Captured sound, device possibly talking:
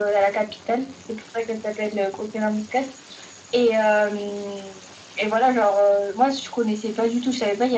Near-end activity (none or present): none